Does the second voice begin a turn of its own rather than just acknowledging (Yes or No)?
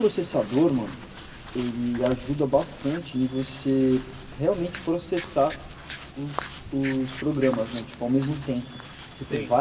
No